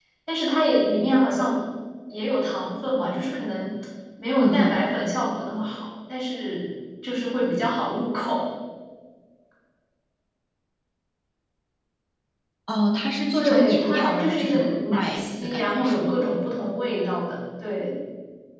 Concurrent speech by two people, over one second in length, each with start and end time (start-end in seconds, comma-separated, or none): 13.4-16.3